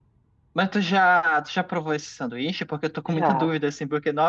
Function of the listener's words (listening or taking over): listening